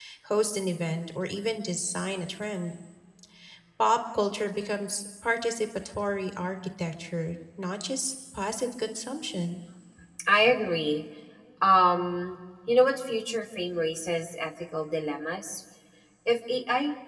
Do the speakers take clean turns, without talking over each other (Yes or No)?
Yes